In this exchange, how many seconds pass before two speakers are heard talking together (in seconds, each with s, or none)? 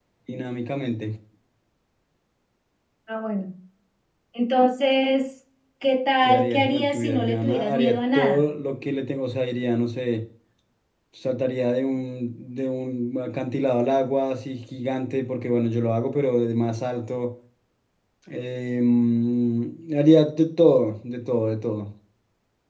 6.2 s